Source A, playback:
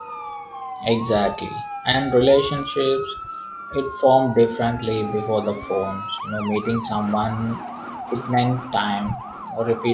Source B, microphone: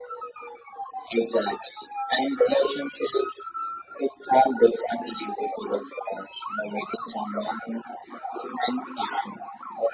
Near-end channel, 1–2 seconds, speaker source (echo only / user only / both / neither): echo only